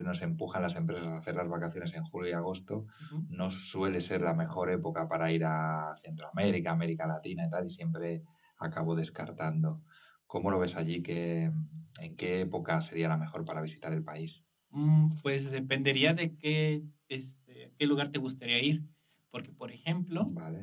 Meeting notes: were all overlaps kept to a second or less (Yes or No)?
Yes